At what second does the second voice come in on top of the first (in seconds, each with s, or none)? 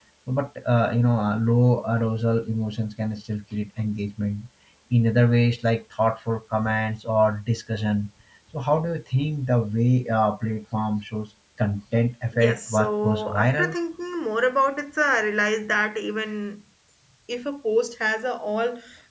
12.3 s